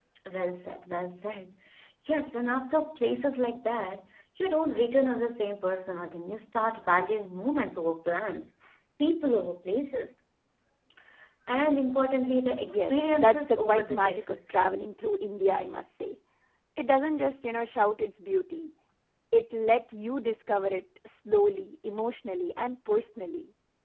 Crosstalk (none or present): present